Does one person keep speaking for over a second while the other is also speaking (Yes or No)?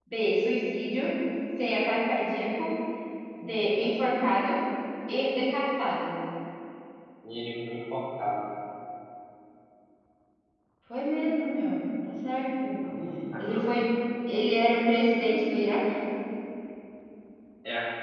No